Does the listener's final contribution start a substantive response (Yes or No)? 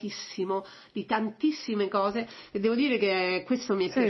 Yes